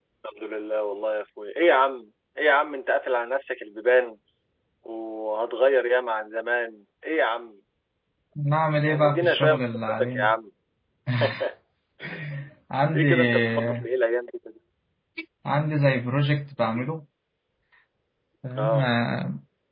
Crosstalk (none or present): present